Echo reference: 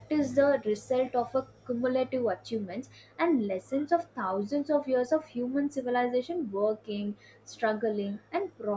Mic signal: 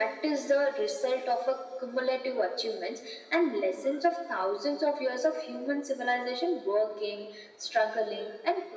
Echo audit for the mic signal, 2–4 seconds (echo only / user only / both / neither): echo only